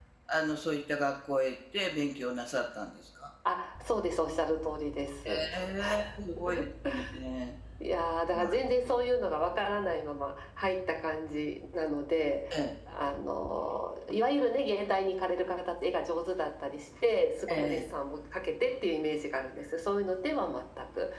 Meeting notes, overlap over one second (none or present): none